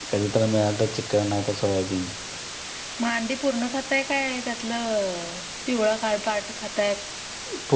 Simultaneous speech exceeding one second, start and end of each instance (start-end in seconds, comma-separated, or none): none